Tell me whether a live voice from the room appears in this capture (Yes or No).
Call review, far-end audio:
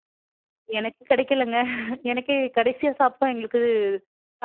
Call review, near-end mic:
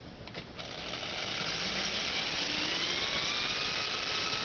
No